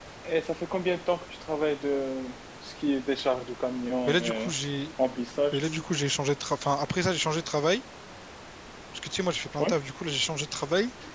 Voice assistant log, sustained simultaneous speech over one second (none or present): none